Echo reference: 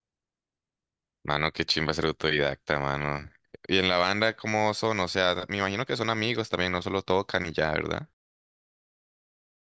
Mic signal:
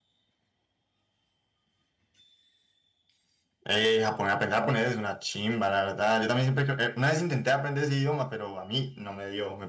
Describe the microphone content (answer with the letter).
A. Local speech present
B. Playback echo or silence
A